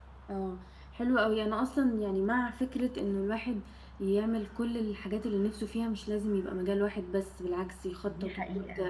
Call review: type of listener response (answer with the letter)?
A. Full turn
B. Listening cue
B